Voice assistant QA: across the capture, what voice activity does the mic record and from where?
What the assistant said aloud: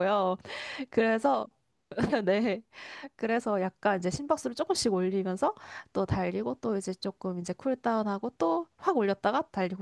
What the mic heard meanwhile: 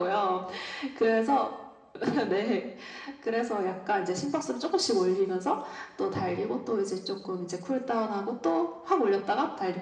echo only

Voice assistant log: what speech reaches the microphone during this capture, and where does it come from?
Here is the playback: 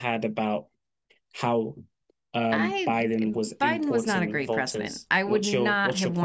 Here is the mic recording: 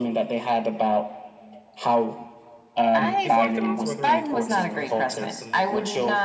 both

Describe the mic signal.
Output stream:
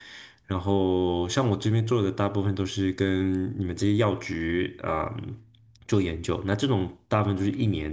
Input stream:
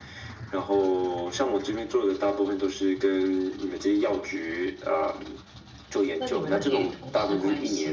both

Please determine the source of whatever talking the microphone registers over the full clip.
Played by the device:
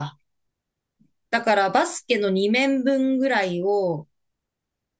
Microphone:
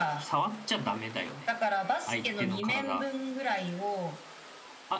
both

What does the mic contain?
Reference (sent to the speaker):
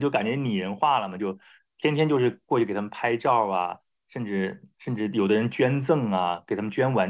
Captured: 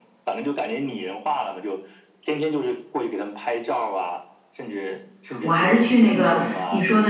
both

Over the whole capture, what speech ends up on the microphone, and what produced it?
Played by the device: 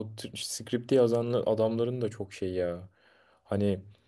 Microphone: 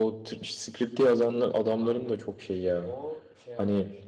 both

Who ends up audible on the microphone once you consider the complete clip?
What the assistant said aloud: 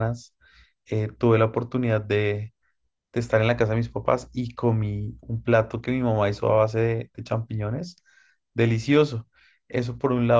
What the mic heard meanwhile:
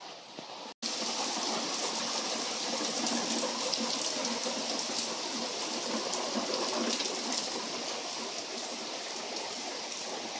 neither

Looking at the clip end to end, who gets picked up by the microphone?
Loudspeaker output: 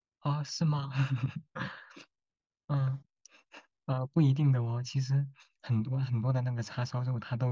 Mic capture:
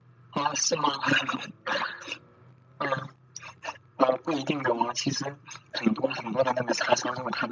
echo only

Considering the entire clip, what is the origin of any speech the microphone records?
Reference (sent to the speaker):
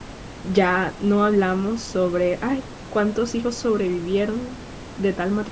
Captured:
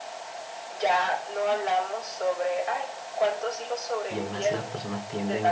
both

